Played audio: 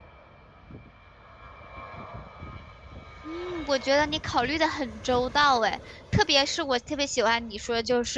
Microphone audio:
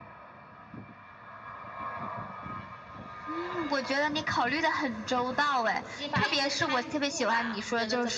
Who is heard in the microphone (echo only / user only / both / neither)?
both